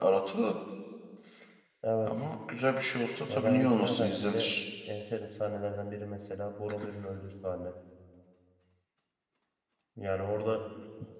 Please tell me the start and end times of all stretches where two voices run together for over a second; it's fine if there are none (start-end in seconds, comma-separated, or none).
3.3-4.5